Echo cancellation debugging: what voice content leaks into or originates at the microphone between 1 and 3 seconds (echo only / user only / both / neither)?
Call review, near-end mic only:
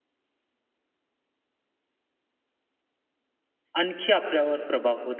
neither